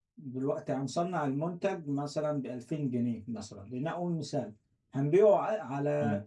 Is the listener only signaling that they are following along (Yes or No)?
Yes